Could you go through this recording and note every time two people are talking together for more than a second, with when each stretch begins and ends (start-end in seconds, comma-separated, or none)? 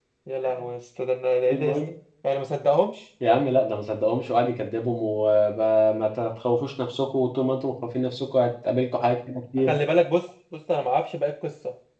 none